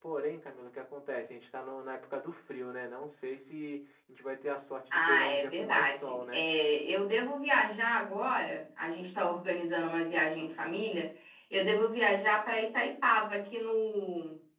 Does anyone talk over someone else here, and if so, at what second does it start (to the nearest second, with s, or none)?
5 s